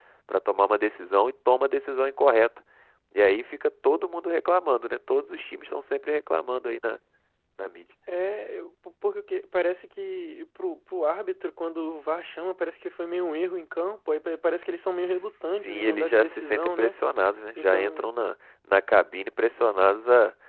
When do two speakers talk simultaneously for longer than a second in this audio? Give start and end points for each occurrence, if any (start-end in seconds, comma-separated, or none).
15.6-16.9